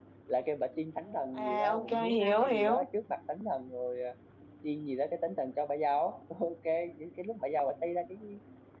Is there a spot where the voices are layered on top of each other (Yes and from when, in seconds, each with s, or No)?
Yes, from 1.4 s